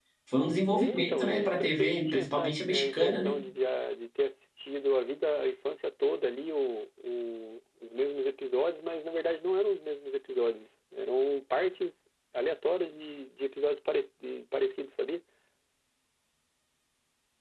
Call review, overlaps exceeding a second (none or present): present